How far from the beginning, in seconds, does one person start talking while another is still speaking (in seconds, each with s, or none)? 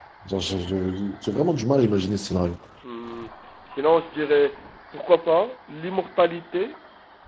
none